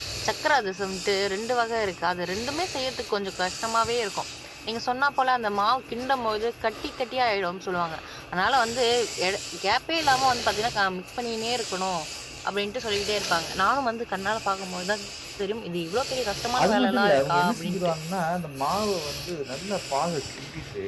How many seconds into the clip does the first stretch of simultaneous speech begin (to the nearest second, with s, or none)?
17 s